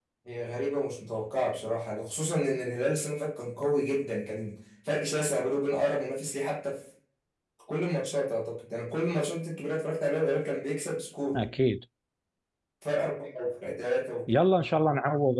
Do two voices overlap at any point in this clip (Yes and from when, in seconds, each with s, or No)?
No